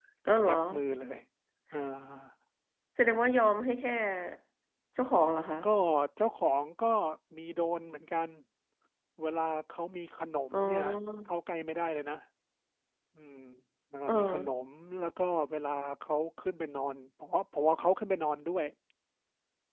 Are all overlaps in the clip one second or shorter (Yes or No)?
Yes